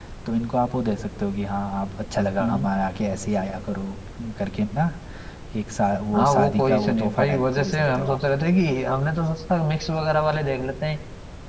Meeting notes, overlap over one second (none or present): present